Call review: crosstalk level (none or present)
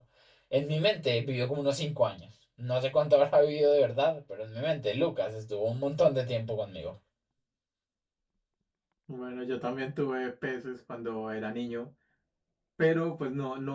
none